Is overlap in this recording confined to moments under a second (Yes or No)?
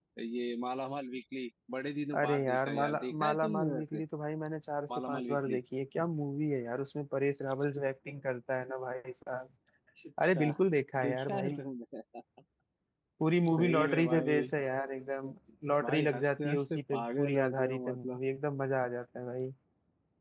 No